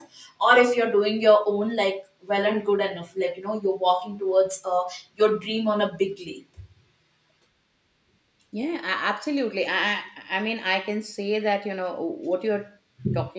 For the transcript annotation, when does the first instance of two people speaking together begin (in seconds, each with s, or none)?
none